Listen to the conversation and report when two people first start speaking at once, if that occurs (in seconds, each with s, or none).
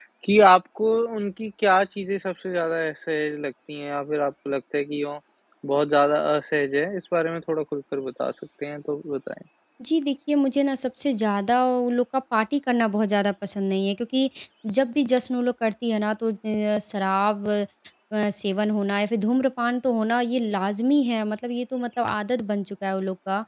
none